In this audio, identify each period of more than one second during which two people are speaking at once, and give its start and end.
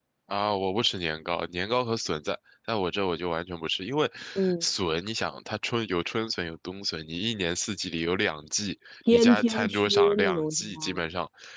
9.1-11.0

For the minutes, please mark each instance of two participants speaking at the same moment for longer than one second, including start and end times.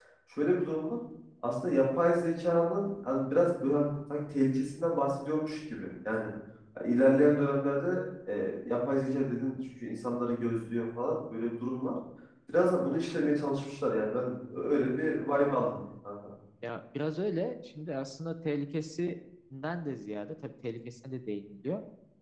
none

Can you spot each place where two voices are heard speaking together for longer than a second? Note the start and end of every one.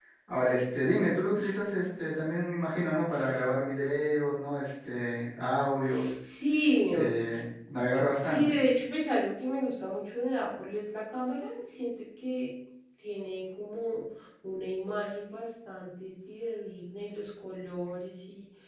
none

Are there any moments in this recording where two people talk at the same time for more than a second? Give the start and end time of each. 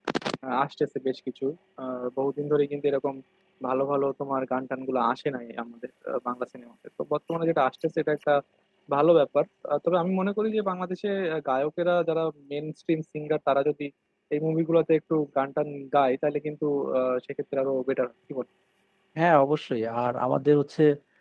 none

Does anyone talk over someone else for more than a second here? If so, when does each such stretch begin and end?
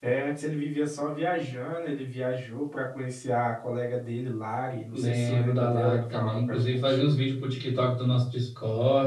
4.9-7.0

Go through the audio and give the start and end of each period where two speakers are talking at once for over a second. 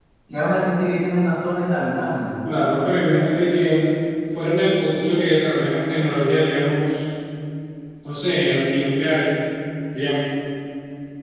none

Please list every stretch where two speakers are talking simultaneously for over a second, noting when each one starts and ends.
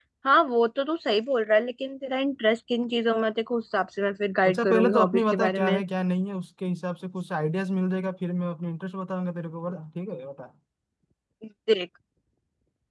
4.5-5.8

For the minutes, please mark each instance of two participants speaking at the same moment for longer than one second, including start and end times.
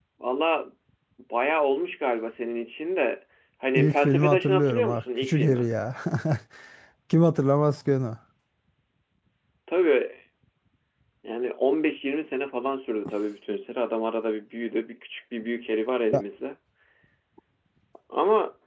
3.8-5.7

